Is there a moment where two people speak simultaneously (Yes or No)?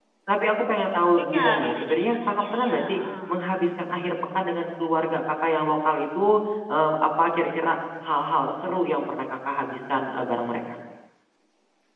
Yes